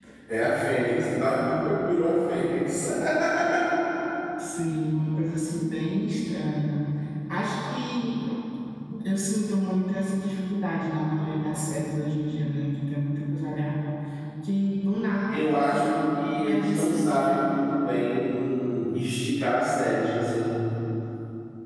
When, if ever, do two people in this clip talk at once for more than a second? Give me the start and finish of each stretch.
16.4-17.7

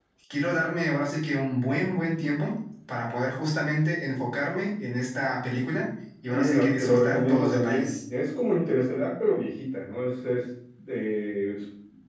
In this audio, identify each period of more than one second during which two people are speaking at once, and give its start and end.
6.3-7.9

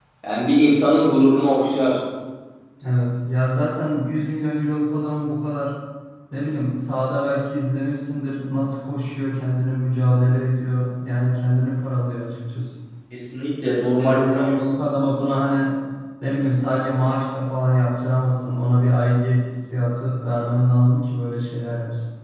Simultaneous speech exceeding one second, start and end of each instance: none

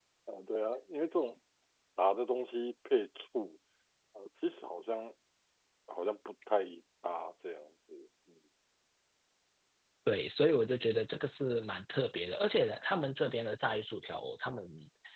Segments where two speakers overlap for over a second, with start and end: none

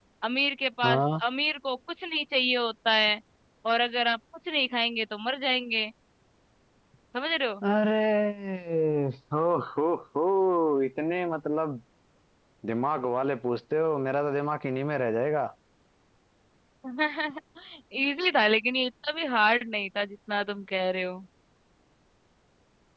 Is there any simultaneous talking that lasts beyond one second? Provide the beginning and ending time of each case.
none

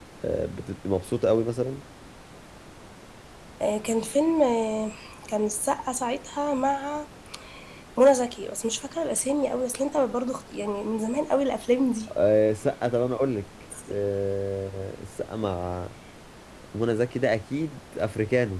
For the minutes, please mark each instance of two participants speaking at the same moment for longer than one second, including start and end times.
none

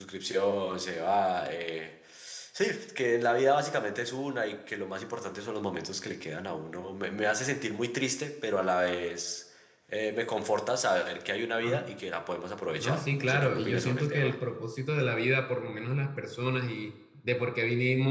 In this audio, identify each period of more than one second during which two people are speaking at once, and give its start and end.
12.8-14.3

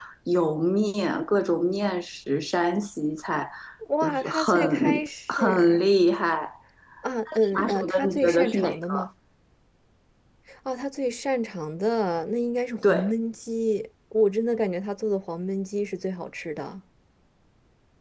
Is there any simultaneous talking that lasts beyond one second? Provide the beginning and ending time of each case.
4.0-5.8, 7.6-8.9

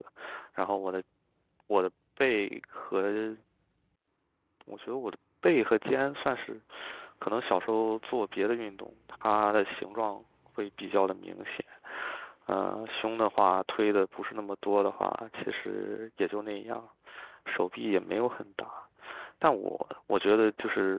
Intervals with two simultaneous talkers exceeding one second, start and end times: none

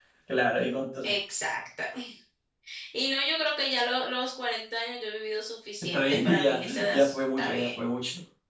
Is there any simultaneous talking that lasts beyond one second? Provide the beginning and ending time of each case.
5.9-7.9

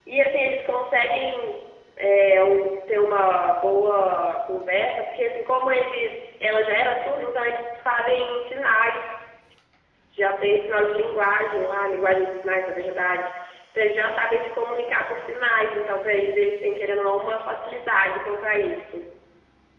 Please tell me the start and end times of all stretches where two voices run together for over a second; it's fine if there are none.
none

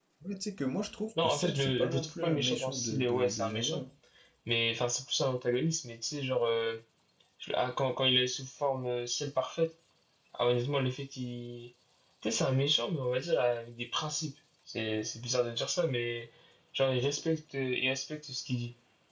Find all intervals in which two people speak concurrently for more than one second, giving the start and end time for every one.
1.2-3.8

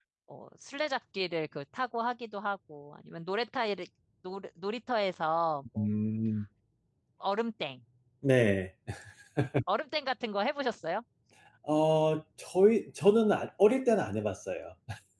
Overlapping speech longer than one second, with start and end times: none

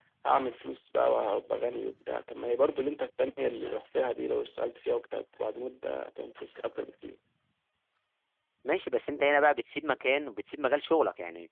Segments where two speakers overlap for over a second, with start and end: none

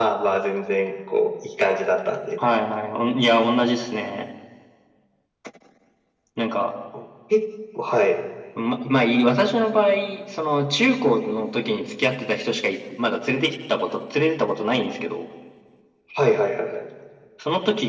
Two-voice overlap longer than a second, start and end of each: none

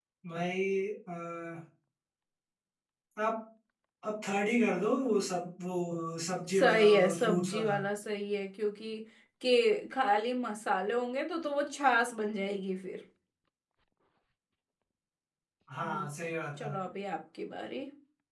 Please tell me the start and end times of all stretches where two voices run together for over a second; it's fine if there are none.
6.5-7.7

